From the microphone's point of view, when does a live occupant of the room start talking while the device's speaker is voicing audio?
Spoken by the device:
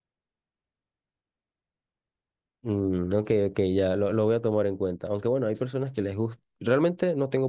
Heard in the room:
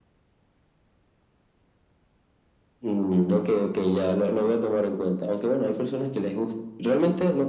none

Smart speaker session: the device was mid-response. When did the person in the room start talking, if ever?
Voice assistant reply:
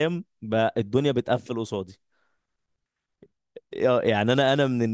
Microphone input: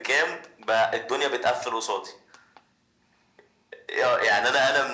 none

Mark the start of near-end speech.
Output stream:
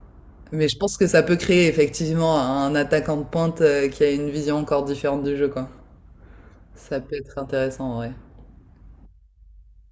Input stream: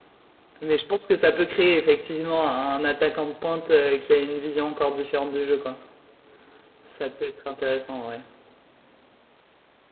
none

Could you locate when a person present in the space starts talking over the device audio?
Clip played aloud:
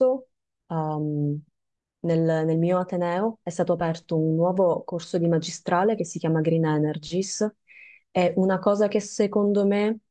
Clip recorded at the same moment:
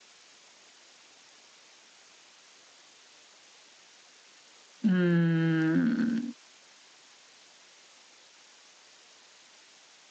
4.8 s

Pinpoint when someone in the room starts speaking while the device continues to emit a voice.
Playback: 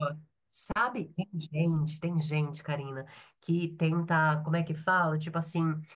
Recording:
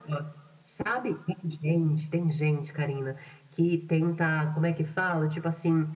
none

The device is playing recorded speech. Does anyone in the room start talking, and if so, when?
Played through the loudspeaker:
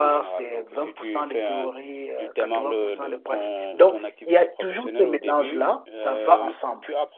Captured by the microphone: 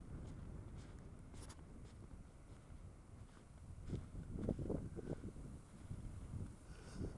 none

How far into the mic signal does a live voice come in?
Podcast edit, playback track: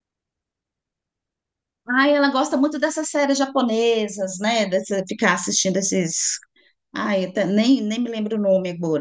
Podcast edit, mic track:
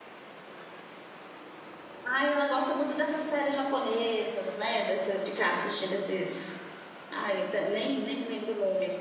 none

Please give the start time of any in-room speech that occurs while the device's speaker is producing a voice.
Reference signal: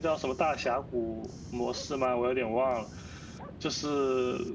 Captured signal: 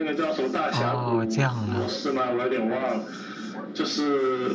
0.7 s

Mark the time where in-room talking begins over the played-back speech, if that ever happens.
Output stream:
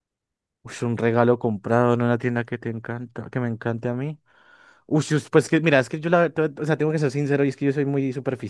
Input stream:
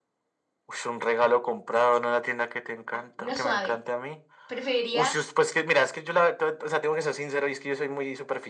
2.9 s

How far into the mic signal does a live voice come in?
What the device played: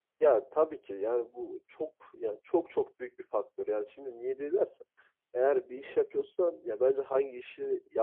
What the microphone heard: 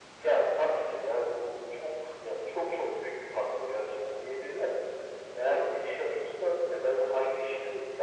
none

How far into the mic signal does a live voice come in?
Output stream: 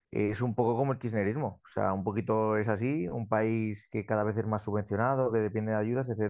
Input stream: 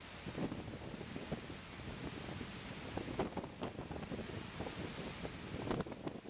none

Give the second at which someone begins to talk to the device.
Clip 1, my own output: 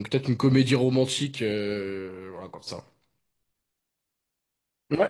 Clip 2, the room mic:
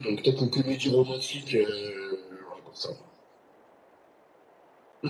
none

